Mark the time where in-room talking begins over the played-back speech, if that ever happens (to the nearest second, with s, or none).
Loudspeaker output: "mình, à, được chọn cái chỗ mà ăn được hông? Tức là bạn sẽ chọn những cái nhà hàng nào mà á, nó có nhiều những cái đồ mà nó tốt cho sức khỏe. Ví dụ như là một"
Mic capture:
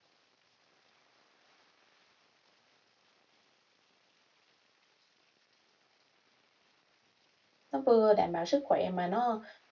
8 s